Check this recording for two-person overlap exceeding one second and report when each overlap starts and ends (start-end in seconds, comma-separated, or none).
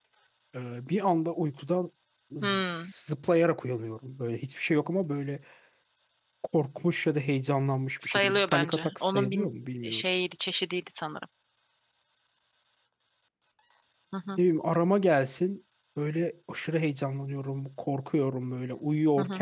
8.0-9.5